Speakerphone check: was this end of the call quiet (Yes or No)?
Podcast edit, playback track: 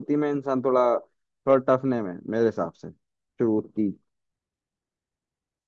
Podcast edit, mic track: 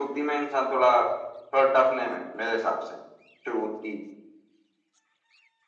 Yes